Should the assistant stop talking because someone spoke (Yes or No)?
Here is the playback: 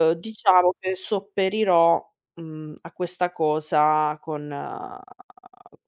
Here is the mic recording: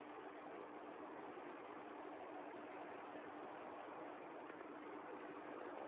No